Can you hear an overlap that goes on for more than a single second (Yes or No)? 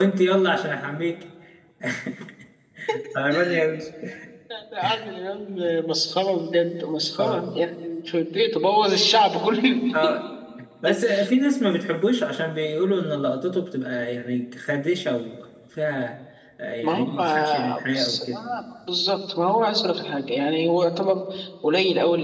Yes